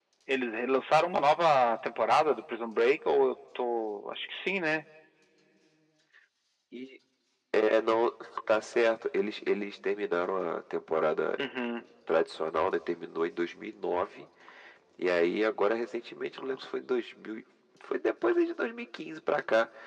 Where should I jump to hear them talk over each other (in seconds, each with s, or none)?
none